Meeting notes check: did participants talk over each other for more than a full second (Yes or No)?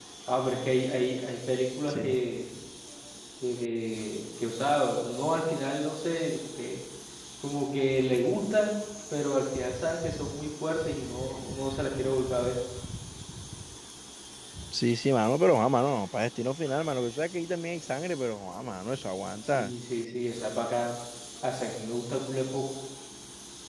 No